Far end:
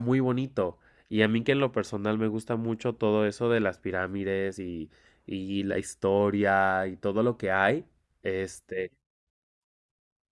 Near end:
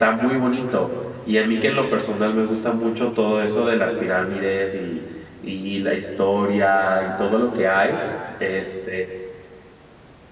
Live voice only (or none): none